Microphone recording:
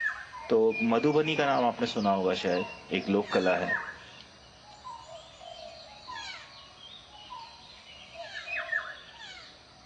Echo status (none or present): none